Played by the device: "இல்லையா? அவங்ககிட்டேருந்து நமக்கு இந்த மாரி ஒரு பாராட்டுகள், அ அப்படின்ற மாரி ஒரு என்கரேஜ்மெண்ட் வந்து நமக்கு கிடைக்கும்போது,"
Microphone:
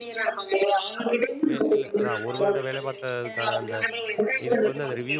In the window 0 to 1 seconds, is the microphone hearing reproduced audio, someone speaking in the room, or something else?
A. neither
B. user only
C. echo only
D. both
C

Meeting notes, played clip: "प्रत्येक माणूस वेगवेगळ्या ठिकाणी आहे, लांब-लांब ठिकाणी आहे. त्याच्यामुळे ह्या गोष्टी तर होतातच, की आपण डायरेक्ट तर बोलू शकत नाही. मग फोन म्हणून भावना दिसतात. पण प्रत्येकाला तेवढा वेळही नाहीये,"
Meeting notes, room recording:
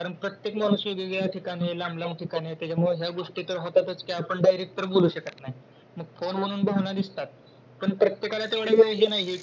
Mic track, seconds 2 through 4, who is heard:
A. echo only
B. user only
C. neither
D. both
A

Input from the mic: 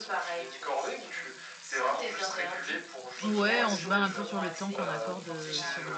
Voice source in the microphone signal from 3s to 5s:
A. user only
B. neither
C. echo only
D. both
D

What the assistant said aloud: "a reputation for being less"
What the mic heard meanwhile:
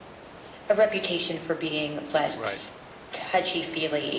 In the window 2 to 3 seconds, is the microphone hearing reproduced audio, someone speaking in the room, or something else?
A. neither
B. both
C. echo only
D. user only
B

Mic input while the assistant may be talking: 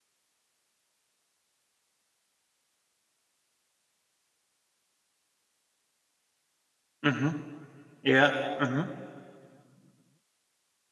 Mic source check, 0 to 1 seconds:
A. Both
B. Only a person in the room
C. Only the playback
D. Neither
D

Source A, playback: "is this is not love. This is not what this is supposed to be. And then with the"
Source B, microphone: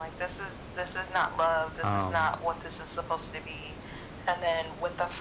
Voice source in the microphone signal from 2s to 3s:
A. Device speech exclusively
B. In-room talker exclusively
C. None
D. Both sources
D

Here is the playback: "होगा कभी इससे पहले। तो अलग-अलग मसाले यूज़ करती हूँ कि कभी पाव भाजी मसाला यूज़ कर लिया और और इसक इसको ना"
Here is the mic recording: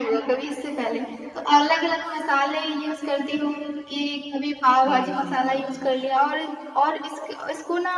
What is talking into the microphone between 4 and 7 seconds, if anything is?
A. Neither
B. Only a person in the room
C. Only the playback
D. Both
D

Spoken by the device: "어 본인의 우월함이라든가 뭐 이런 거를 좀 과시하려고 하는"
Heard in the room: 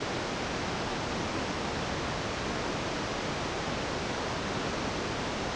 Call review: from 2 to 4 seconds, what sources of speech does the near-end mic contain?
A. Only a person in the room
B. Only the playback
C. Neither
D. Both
C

